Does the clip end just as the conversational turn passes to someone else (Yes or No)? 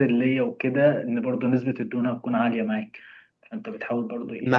Yes